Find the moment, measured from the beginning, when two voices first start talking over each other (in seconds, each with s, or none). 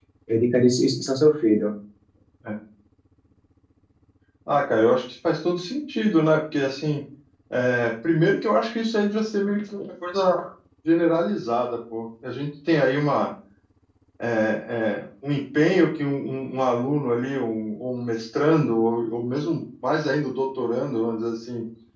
none